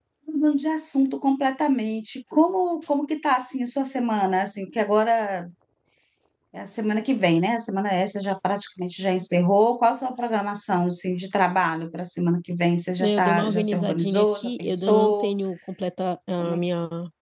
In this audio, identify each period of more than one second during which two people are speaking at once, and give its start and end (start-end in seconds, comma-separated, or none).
13.0-15.3